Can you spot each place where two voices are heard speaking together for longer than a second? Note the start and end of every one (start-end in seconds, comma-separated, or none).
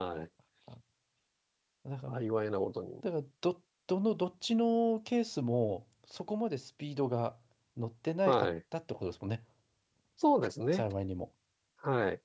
none